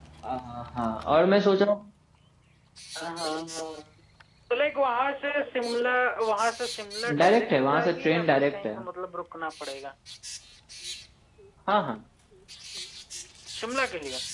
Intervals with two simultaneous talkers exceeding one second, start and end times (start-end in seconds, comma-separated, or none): 7.2-8.7